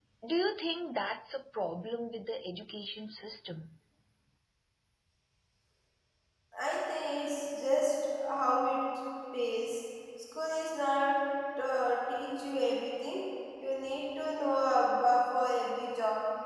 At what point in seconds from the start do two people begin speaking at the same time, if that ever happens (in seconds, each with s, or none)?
none